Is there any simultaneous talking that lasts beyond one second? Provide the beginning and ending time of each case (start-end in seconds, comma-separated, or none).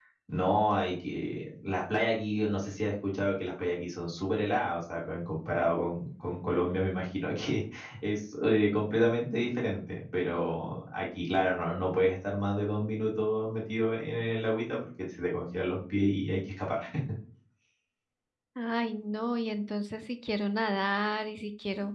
none